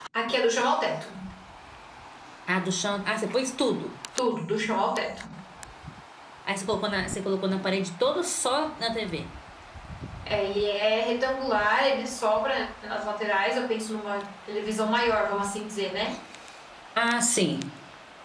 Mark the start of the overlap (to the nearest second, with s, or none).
none